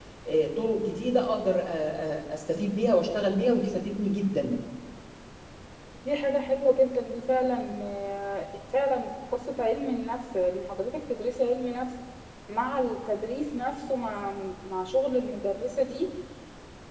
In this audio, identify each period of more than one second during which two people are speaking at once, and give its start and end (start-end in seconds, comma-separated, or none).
none